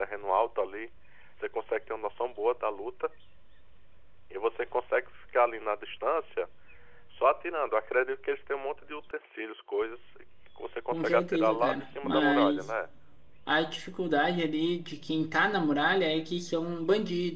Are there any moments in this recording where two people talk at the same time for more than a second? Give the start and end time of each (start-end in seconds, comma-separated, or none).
10.9-12.6